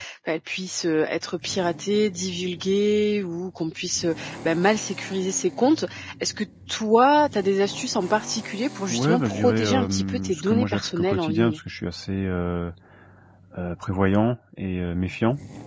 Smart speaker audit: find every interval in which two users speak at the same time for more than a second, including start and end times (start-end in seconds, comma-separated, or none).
8.9-11.6